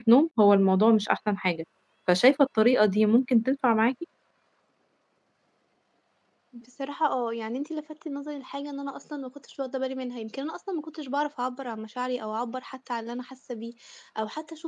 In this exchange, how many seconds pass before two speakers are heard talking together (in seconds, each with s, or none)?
none